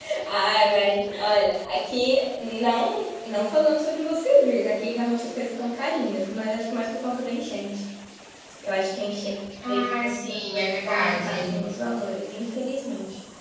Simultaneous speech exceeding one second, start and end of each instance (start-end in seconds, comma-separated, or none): 9.7-11.6